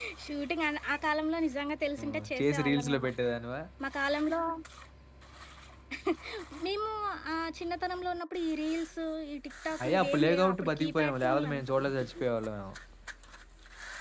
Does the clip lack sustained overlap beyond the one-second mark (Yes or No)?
No